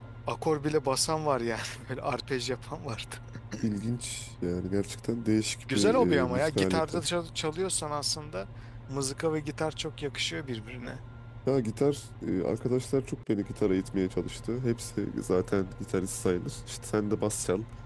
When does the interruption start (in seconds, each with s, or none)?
5.7 s